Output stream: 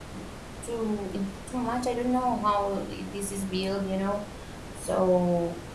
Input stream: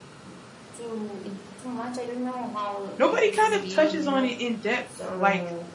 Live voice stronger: Yes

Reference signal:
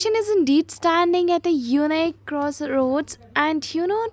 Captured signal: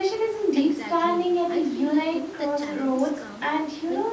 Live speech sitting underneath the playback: Yes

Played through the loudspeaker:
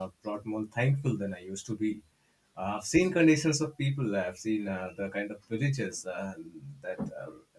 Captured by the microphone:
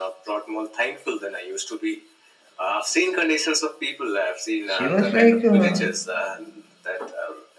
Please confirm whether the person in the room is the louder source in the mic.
Yes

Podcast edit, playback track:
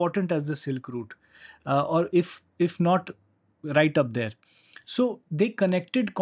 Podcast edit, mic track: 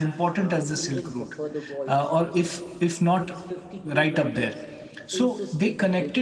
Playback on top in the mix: Yes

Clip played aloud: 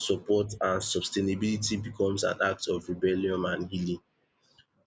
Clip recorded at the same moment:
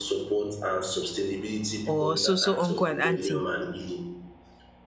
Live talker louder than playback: Yes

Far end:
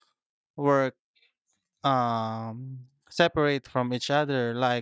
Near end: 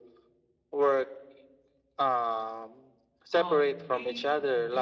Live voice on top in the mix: No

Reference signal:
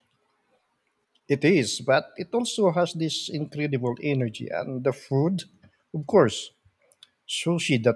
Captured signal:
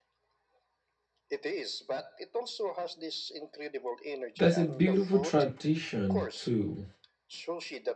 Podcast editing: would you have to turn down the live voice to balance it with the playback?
Yes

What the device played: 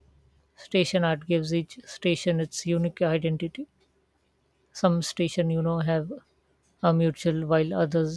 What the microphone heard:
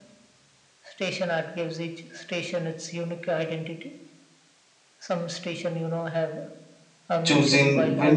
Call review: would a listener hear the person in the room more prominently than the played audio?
Yes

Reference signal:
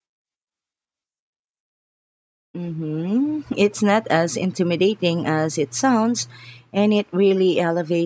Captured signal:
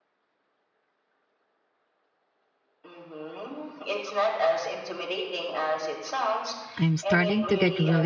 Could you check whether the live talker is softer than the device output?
No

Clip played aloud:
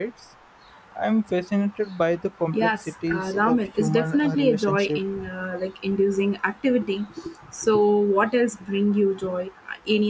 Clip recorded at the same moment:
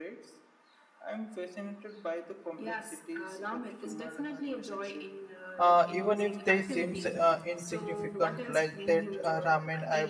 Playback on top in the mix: No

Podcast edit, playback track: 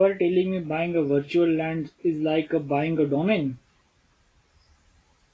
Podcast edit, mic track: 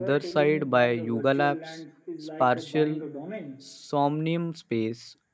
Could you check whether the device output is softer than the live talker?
Yes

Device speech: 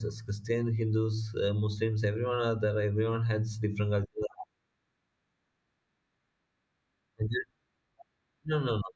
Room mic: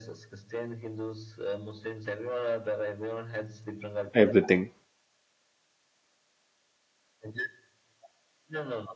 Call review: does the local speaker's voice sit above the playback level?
Yes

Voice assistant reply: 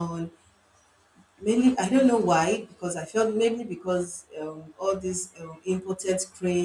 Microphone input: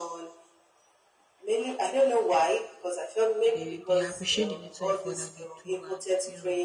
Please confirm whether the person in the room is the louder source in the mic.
No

